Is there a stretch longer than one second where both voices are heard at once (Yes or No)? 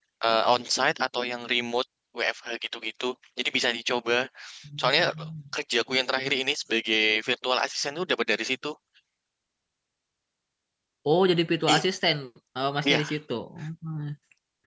No